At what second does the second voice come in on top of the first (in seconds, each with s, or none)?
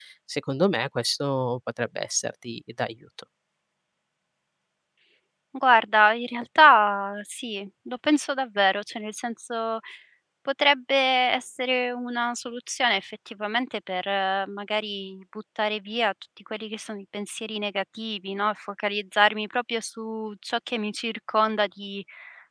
none